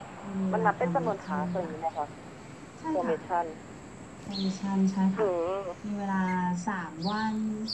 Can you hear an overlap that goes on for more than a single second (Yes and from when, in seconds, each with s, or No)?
Yes, from 0.5 s